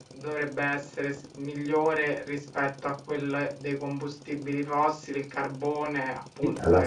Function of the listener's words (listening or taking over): taking over